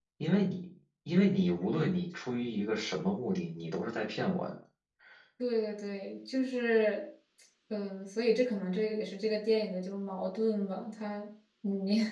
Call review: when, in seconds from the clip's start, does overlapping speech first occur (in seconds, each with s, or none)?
none